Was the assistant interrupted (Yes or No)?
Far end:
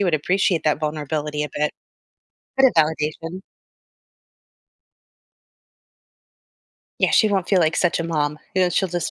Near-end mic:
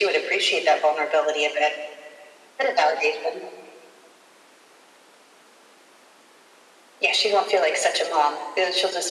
No